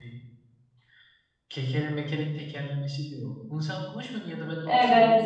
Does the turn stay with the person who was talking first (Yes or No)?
No